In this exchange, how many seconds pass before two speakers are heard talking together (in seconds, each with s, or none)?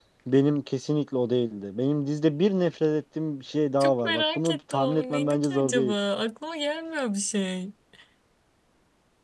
3.8 s